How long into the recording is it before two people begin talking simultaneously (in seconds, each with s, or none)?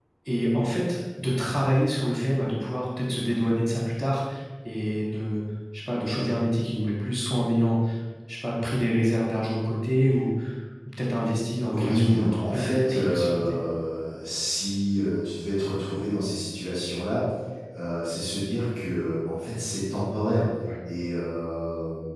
11.7 s